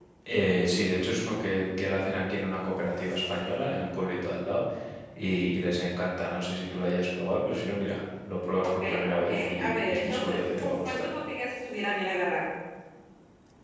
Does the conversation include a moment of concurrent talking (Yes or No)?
Yes